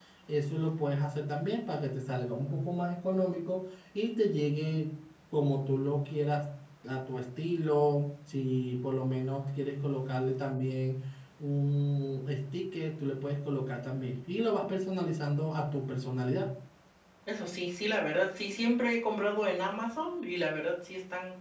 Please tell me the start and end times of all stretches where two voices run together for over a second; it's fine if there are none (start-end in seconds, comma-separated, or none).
none